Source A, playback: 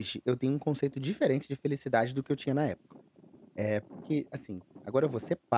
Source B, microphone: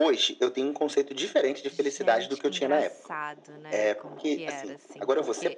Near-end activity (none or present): present